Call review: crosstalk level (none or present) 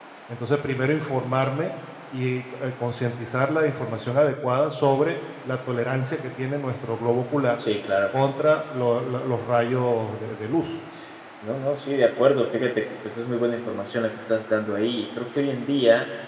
none